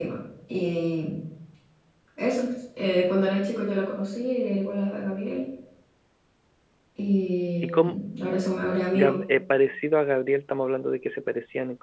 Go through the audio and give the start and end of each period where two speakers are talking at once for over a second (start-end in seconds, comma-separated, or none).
none